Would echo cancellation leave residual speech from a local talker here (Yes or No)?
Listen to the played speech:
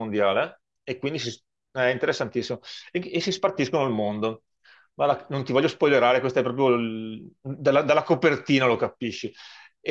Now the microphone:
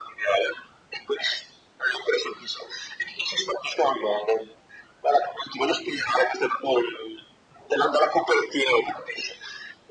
No